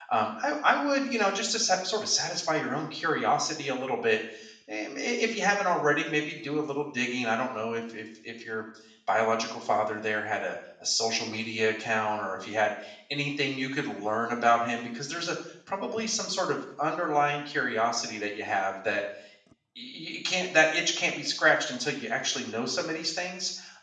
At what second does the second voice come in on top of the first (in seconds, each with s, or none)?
none